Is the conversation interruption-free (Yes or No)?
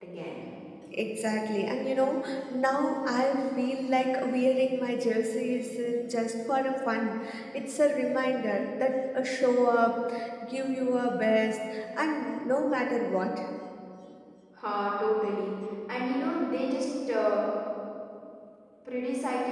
Yes